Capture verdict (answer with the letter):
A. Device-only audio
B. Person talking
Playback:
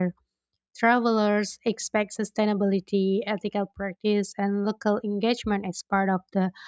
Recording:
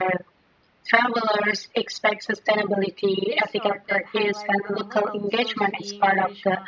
B